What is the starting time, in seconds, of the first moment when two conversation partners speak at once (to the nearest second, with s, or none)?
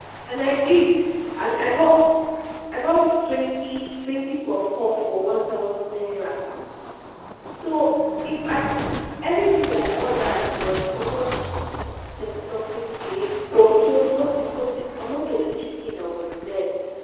none